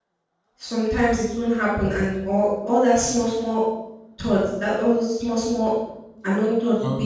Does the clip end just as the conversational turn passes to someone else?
No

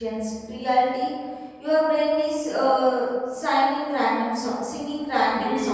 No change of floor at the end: No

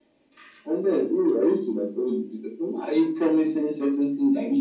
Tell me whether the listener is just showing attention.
No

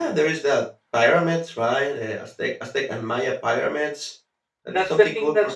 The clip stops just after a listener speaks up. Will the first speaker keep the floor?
No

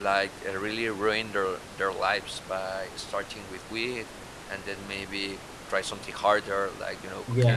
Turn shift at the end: Yes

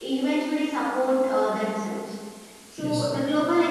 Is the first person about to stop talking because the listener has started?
No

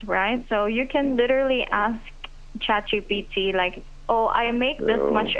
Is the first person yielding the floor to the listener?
No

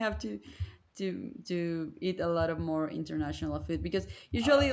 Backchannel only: Yes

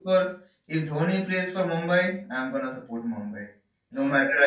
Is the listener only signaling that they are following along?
No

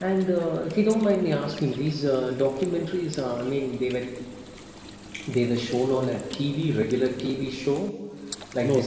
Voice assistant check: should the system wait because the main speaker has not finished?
No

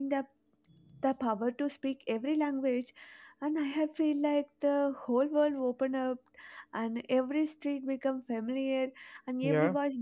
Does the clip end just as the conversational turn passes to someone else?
No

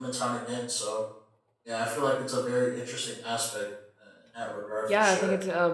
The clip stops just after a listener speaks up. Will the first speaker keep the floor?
No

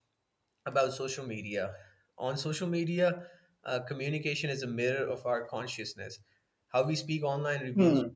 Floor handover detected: No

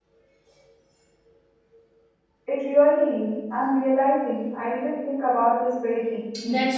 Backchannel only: No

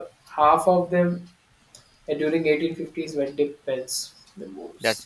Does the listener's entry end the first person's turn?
No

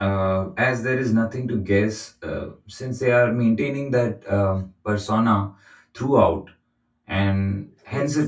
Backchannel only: Yes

